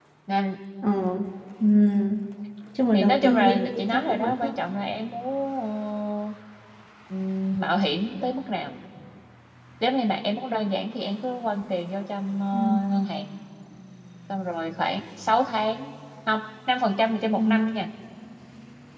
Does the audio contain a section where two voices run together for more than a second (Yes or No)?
Yes